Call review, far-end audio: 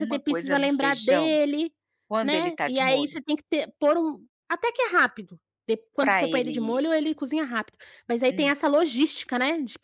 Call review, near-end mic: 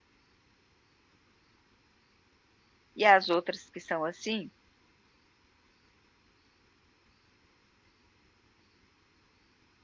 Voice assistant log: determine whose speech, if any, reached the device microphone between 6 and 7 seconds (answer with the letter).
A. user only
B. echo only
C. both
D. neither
D